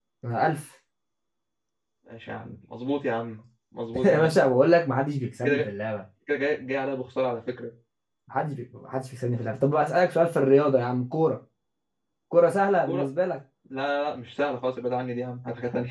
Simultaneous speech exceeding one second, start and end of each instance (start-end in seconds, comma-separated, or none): none